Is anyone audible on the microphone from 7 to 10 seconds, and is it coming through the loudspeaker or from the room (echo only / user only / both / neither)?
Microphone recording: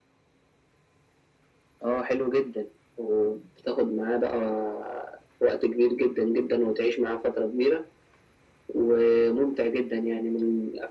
echo only